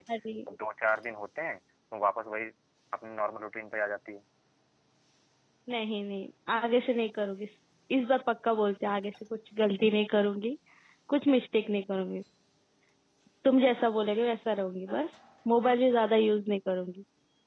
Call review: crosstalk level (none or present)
none